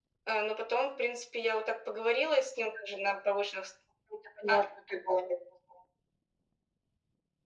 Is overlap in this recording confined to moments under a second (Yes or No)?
Yes